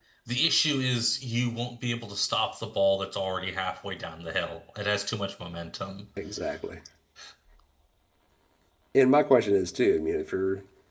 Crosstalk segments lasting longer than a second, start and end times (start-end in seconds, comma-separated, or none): none